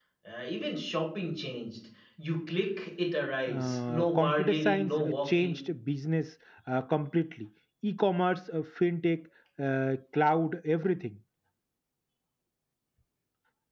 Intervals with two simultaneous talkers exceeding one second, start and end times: 3.5-5.6

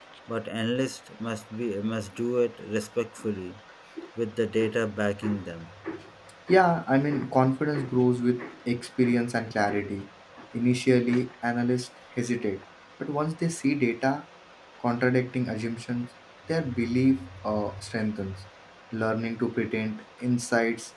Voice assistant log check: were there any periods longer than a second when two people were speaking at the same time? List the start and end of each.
none

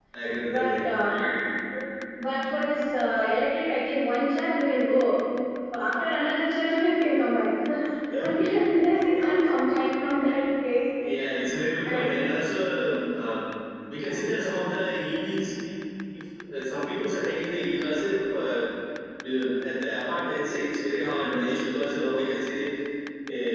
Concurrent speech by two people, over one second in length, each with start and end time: none

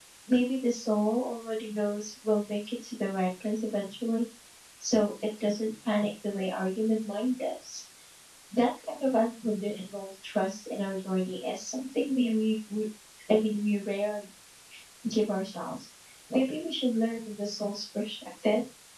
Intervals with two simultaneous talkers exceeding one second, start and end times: none

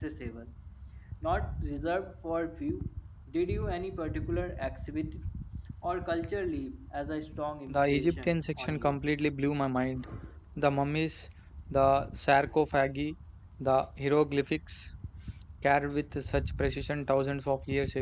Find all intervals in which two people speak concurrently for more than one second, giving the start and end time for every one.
7.7-9.0

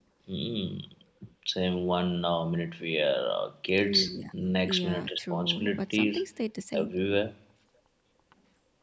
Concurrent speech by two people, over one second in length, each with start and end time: 4.7-6.2

